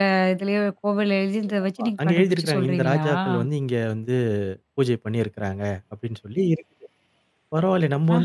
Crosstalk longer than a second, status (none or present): present